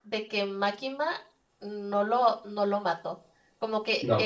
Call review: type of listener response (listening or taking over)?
listening